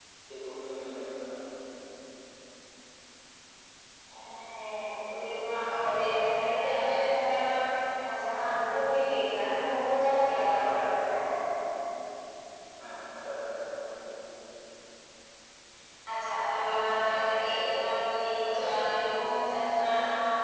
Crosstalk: none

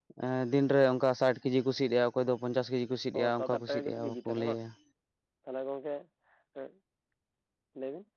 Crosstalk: present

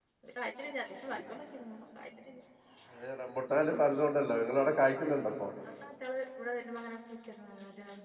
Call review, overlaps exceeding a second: none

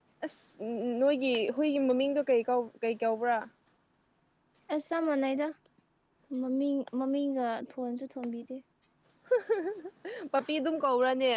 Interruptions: none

